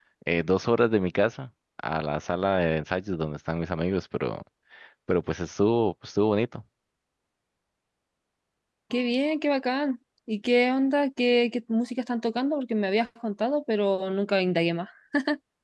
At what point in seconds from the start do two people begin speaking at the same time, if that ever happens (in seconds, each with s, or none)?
none